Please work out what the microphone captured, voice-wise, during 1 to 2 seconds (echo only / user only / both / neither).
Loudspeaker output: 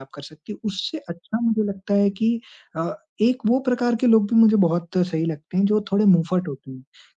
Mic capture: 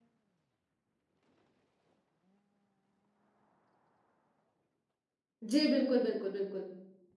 neither